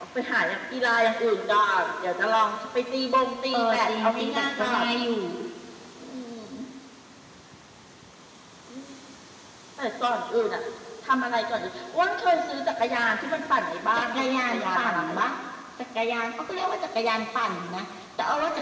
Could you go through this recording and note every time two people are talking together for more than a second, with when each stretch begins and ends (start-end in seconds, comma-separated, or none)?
3.5-4.8, 13.9-15.3